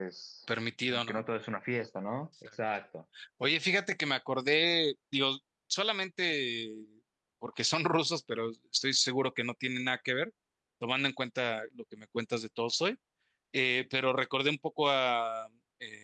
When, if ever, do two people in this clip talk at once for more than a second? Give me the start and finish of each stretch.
none

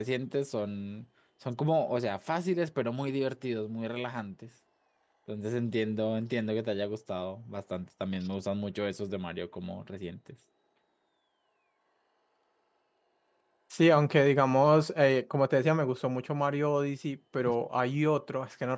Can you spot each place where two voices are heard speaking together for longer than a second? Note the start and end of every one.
none

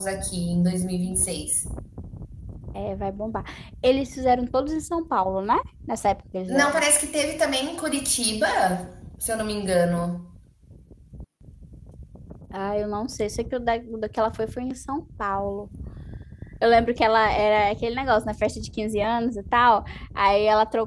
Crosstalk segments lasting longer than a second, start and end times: none

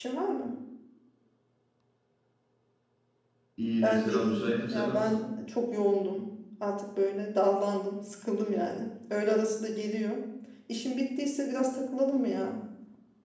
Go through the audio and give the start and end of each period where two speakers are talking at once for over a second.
3.8-5.2

